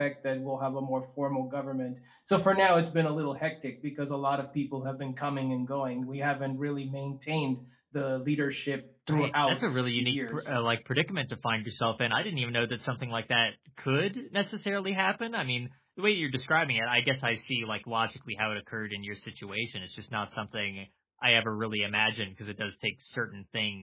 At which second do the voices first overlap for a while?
9.1 s

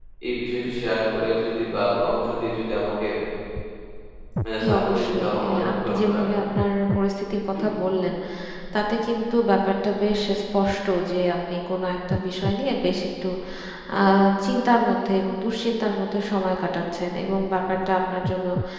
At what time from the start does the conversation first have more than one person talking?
4.6 s

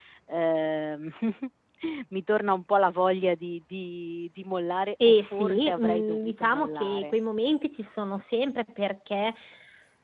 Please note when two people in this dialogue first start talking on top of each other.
5.0 s

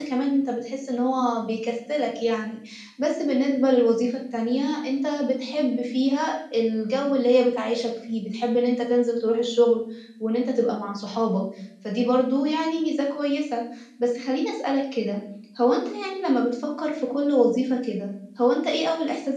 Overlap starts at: none

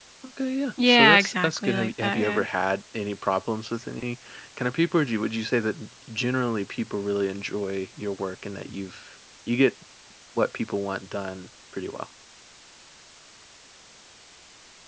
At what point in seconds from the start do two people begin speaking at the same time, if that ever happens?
0.9 s

